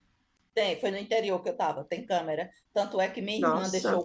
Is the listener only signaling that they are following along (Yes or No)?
Yes